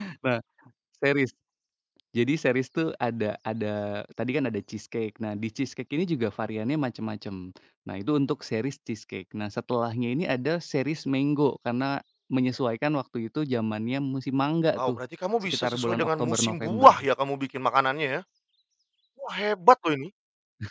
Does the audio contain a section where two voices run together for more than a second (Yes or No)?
Yes